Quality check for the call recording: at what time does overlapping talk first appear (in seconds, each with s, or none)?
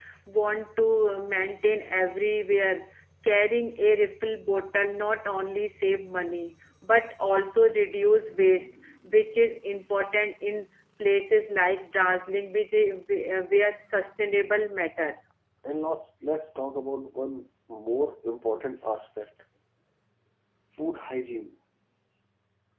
none